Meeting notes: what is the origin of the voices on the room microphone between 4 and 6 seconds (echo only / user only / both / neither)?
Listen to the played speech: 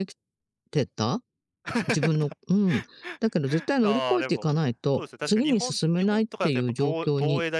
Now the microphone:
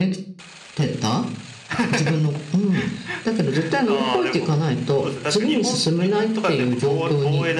echo only